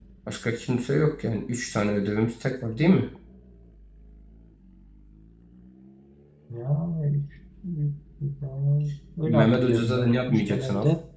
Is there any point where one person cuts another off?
Yes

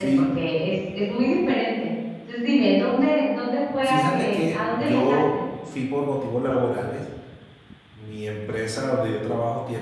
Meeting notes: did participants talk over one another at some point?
Yes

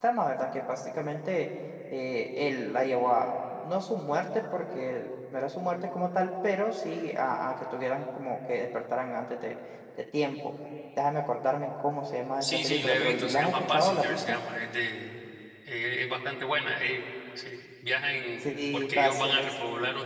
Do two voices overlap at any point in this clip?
Yes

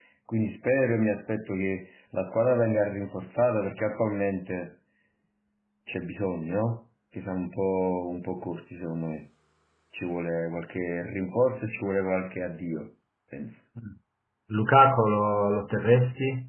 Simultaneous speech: No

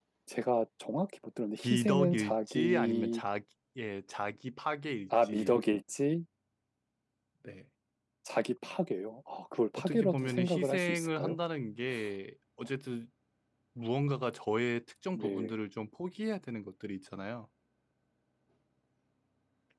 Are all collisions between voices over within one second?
No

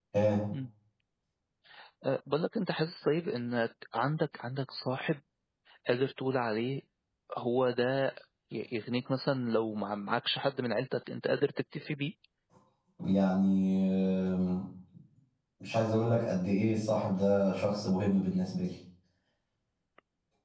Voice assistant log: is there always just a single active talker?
Yes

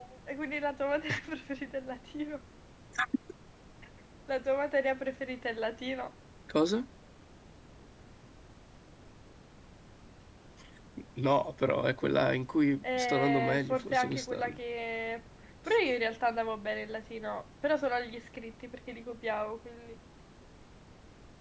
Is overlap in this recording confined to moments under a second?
No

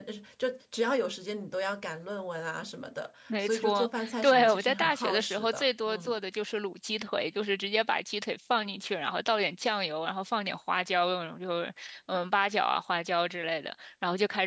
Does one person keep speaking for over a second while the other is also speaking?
Yes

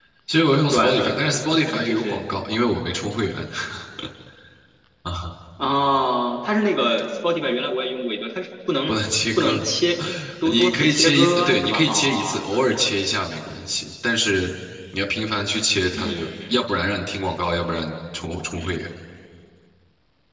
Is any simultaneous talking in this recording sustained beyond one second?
Yes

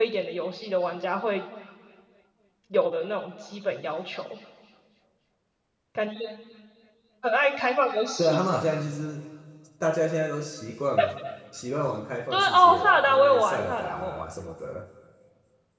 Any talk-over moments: Yes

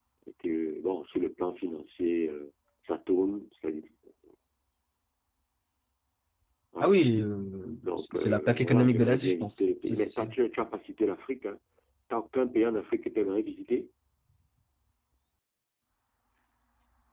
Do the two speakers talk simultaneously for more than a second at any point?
Yes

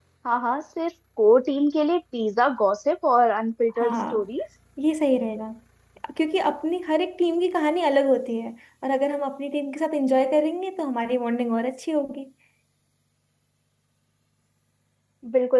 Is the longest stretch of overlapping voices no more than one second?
Yes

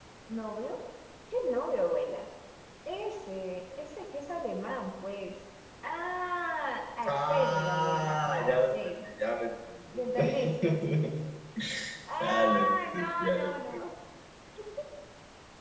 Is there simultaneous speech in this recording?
Yes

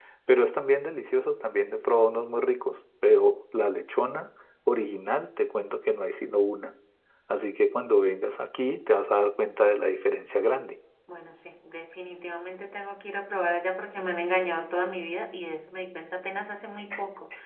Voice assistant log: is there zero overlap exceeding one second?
Yes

